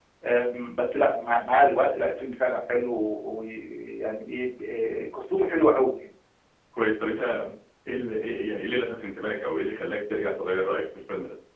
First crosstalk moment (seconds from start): none

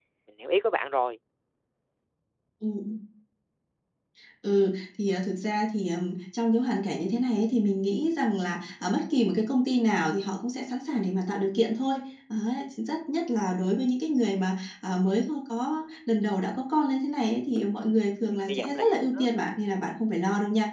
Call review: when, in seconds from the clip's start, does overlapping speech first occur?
18.2 s

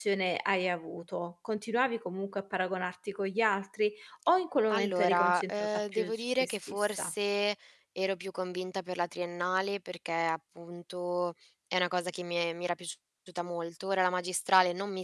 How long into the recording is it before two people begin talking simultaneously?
4.7 s

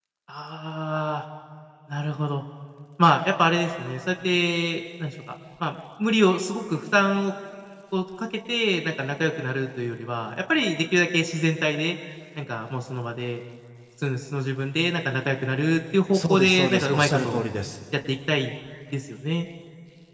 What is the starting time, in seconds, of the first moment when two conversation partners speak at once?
16.1 s

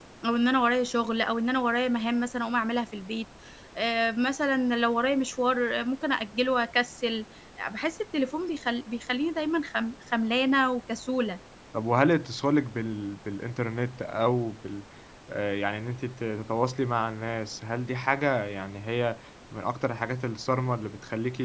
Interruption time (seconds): none

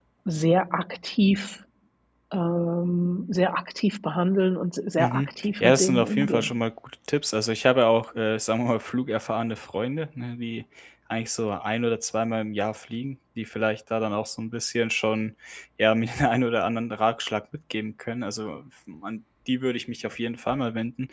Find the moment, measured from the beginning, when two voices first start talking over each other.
5.0 s

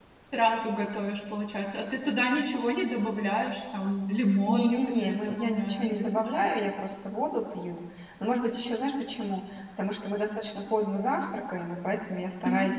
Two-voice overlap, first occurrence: 4.5 s

